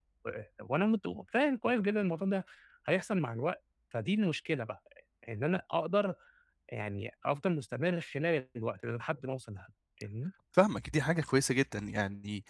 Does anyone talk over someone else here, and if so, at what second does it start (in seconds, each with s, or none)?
none